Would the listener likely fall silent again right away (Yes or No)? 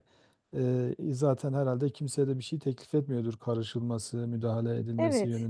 No